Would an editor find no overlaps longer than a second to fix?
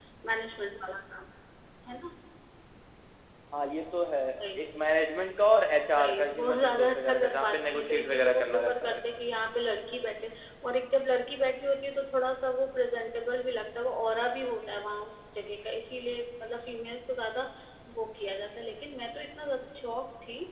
No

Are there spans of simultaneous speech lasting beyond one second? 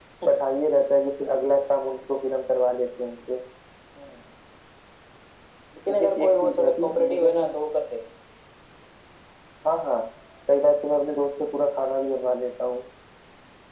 Yes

